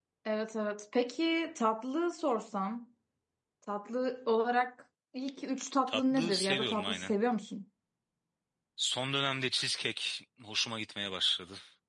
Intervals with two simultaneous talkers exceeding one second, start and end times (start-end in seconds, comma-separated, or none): 5.9-7.1